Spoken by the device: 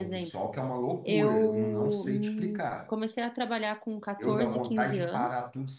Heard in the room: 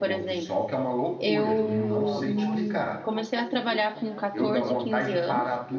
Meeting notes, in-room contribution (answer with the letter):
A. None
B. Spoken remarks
B